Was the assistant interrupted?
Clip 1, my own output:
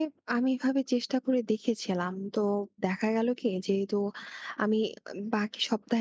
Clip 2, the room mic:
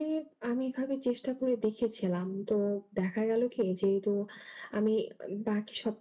No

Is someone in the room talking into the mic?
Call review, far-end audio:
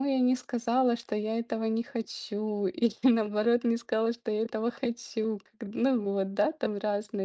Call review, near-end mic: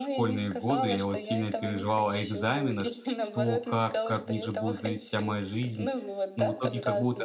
Yes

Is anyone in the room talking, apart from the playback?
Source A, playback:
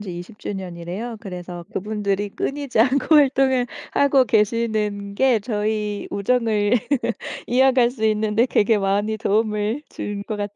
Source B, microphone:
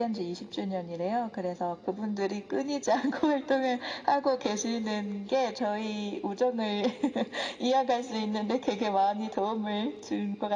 No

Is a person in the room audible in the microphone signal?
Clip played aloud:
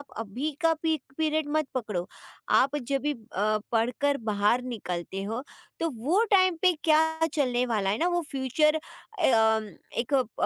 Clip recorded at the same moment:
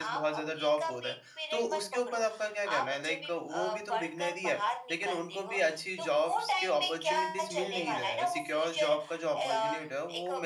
Yes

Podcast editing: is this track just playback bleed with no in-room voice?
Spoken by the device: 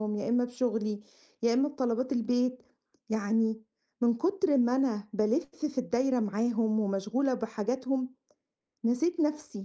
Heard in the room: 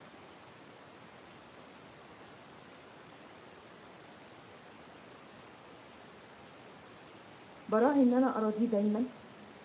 No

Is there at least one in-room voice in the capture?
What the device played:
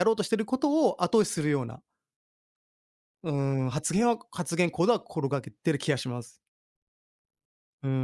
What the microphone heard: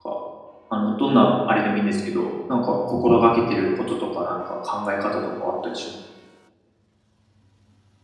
Yes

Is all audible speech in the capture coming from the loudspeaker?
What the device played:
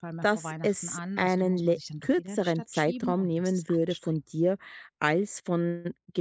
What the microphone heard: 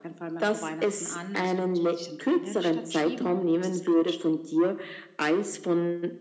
Yes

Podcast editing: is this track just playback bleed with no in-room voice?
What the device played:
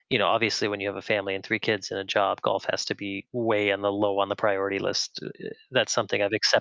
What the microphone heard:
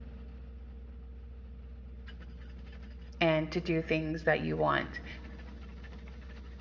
No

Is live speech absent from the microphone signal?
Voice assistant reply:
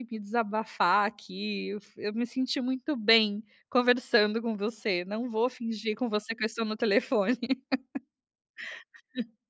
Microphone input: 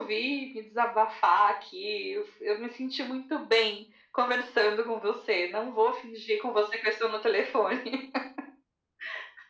Yes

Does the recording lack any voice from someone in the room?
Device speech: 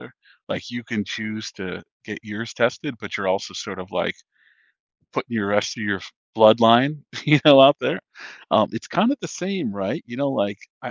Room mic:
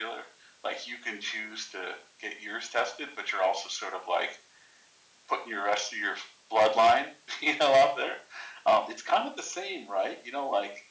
Yes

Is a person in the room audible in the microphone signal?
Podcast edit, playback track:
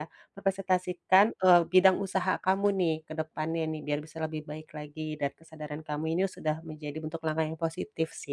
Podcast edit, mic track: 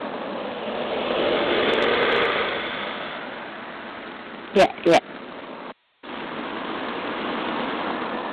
Yes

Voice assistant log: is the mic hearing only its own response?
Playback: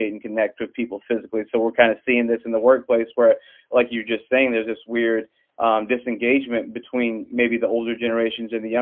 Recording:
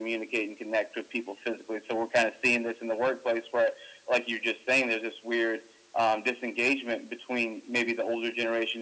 Yes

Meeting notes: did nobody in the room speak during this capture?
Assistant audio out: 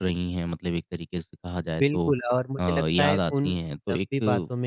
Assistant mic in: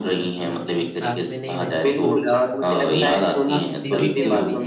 No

